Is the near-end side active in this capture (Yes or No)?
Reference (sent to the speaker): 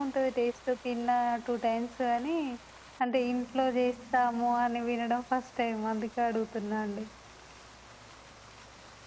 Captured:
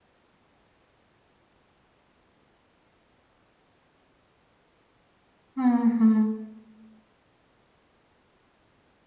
Yes